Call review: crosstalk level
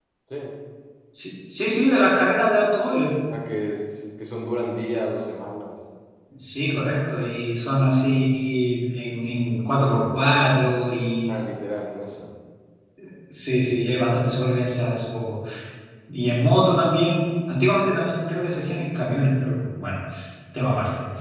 none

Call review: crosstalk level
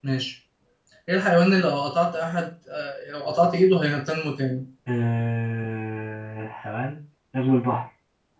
none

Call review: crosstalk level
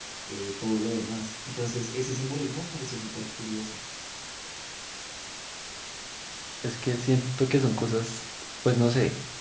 none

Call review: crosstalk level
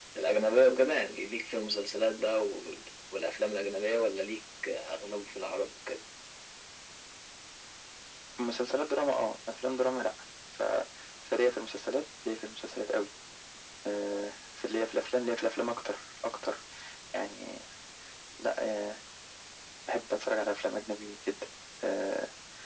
none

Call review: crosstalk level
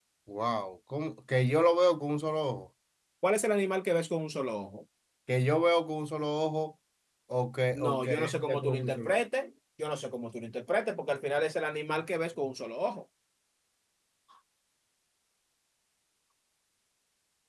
present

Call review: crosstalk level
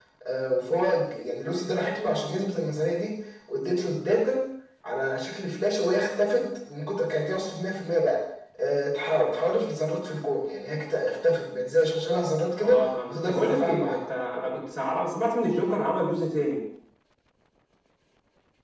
present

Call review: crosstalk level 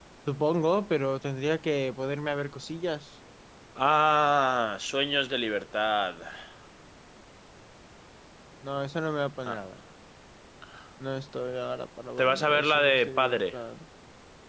present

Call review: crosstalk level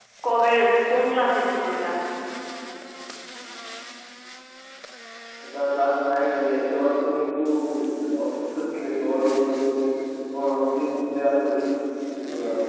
none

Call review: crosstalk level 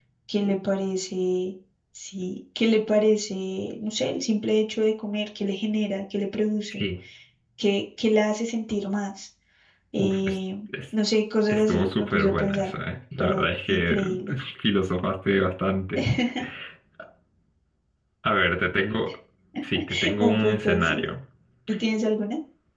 present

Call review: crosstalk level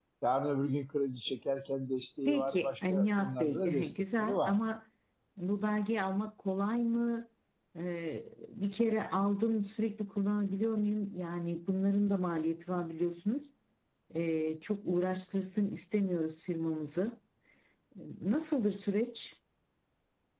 present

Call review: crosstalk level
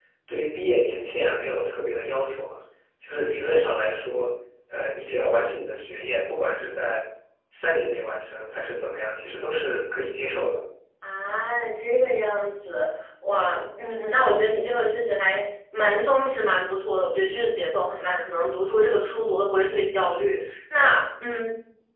none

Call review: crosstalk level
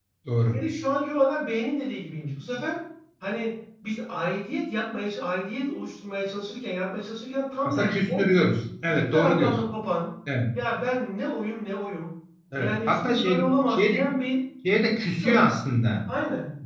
present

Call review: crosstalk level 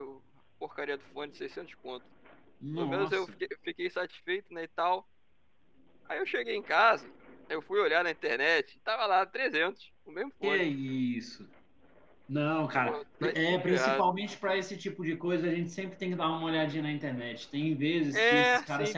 present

